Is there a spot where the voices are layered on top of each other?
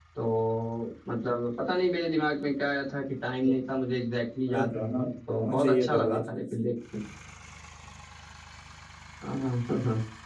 Yes, from 4.5 s

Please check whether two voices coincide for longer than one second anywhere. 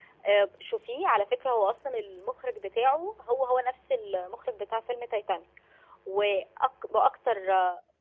No

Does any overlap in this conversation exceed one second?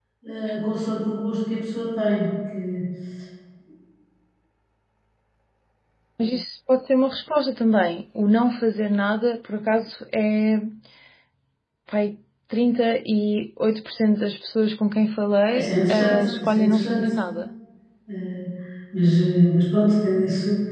Yes, from 15.5 s

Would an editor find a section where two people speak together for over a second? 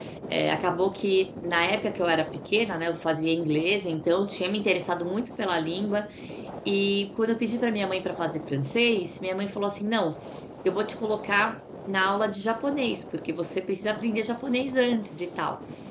No

